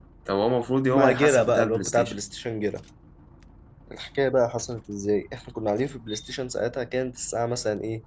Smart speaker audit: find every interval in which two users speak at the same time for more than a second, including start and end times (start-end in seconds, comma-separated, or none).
0.9-2.1